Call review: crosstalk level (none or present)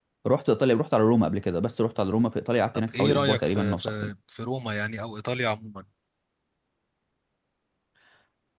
present